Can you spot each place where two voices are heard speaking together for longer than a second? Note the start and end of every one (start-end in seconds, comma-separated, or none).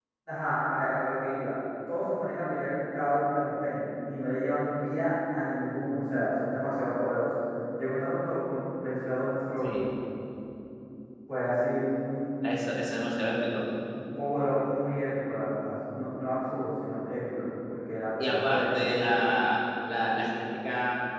18.2-19.4